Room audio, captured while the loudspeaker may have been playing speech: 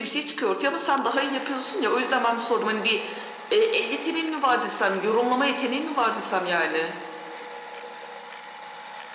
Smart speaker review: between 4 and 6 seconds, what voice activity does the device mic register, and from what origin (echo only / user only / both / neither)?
echo only